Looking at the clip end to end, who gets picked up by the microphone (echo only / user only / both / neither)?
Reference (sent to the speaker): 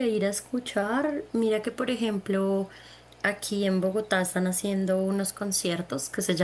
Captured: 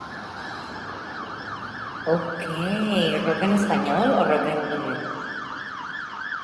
user only